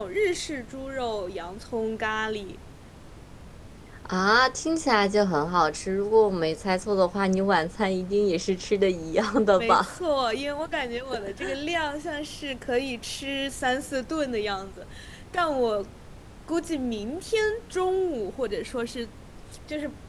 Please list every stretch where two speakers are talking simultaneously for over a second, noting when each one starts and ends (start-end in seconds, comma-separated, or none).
none